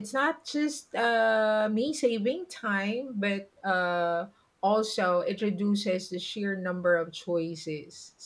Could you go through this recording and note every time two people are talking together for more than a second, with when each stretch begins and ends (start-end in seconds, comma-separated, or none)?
none